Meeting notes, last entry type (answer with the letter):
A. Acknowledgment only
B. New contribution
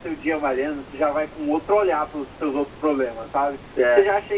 A